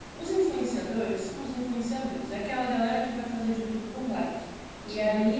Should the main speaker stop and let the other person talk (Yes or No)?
No